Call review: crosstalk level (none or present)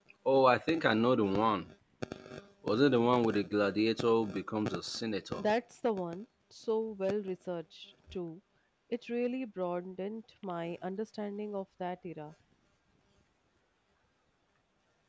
none